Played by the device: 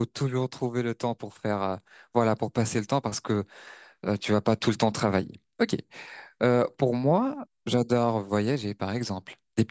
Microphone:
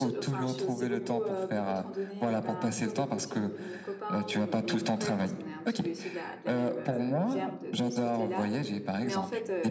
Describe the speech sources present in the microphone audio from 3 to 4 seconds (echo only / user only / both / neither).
both